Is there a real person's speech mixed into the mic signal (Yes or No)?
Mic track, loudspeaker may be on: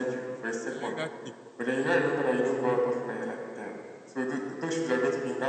Yes